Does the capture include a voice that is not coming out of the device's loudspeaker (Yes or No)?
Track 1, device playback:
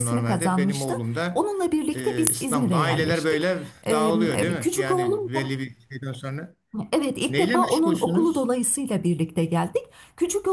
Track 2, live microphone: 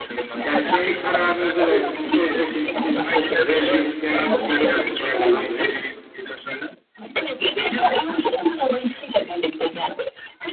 Yes